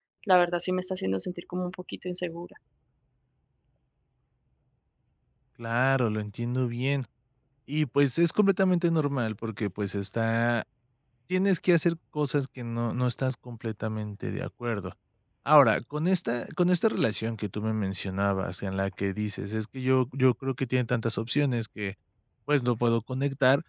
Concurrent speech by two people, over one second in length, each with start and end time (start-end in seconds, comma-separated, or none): none